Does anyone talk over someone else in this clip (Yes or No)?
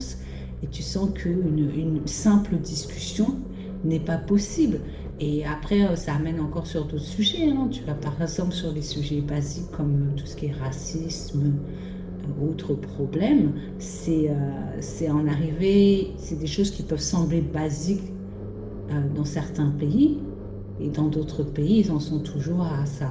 No